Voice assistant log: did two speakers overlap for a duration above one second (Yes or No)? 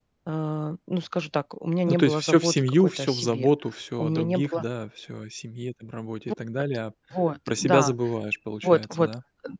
Yes